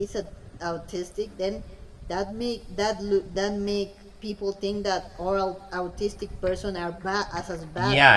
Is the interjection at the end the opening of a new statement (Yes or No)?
Yes